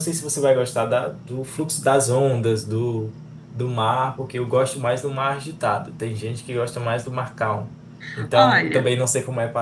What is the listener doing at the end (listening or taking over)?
listening